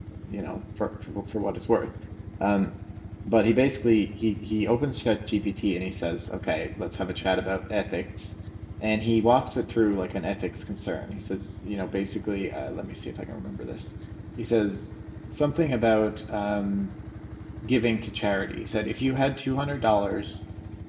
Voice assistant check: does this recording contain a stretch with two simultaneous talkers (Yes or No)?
No